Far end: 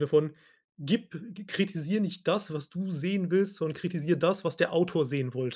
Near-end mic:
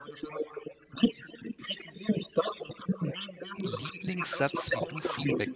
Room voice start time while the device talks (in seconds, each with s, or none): 3.6 s